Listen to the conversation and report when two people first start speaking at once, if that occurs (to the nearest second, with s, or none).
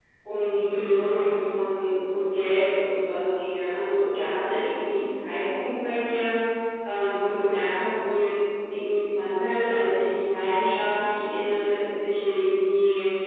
none